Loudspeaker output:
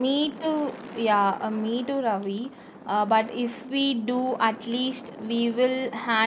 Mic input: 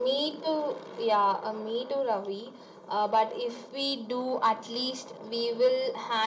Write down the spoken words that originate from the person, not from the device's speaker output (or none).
none